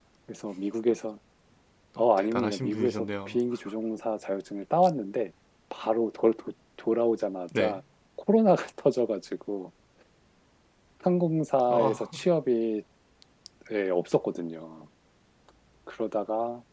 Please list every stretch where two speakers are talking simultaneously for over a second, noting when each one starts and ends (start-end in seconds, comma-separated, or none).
2.2-3.4